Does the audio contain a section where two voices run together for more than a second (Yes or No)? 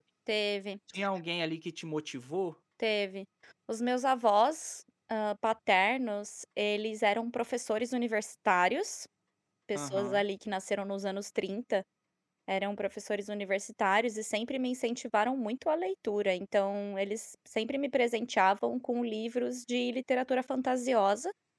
No